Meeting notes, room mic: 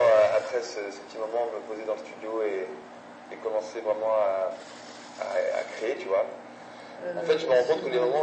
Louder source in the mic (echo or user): echo